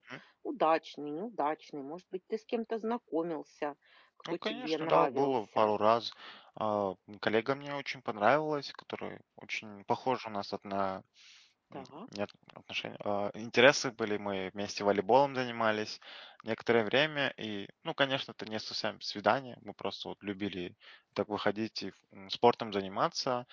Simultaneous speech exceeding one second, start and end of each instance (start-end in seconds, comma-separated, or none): 4.3-5.7